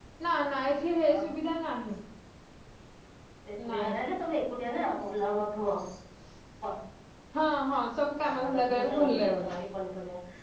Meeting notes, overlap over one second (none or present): present